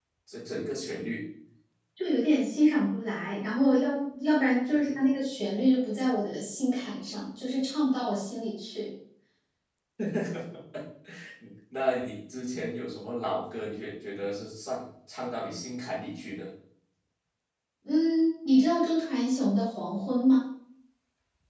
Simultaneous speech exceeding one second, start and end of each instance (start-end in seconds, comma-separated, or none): none